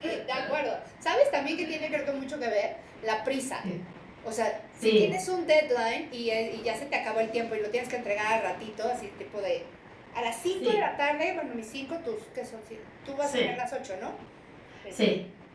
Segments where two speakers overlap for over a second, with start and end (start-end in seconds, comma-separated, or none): none